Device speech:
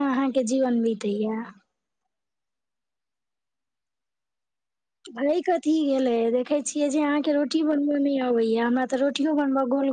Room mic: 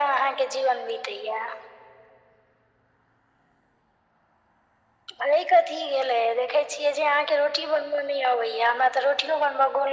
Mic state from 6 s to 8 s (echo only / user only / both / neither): echo only